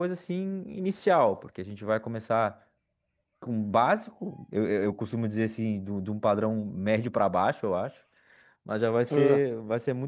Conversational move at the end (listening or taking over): listening